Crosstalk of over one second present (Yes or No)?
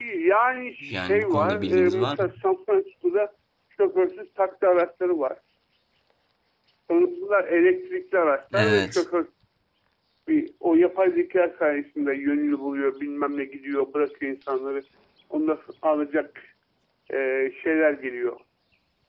Yes